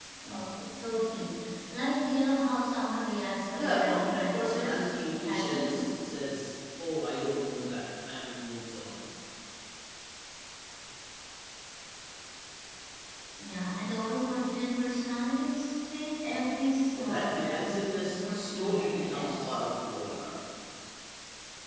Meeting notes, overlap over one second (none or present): present